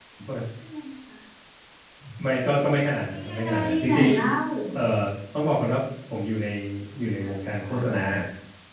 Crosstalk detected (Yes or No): Yes